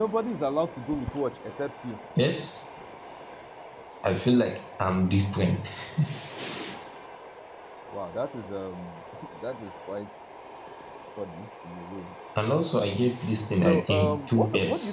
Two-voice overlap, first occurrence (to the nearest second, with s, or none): 14 s